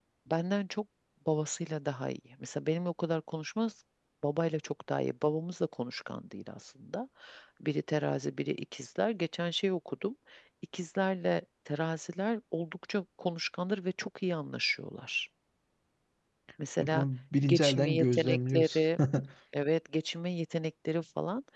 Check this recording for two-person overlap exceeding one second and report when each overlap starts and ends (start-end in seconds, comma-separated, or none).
17.5-18.8